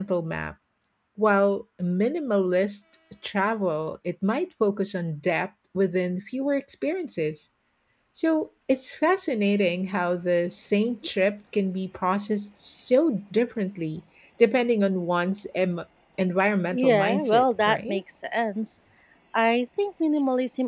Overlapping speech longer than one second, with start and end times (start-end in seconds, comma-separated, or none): 16.7-18.0